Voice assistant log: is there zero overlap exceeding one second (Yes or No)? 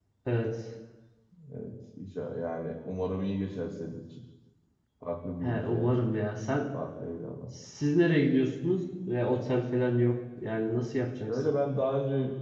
Yes